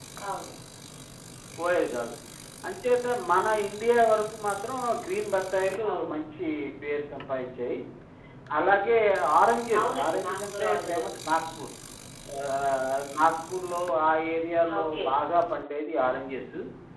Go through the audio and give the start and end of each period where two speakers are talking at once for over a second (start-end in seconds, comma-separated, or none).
9.8-11.1